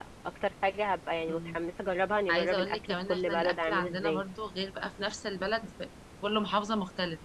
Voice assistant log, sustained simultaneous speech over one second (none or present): present